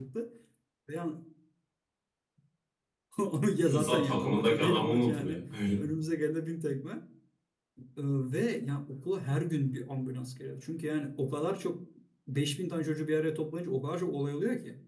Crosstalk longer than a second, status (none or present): present